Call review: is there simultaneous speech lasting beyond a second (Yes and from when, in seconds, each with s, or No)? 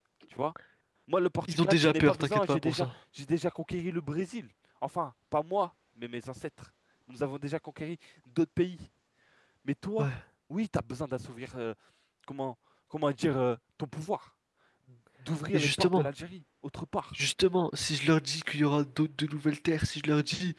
Yes, from 1.5 s